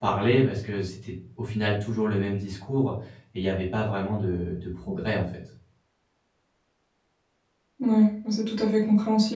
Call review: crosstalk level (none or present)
none